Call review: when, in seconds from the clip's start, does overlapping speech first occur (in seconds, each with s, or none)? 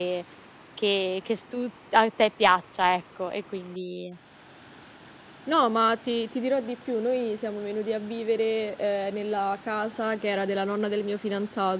none